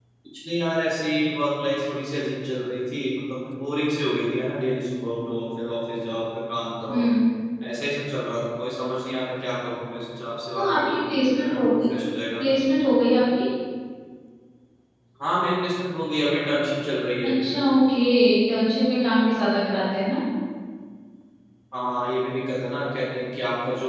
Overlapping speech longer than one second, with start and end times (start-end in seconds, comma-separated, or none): 10.6-11.8